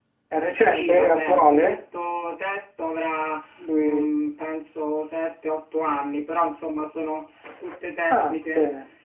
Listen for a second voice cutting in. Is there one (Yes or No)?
Yes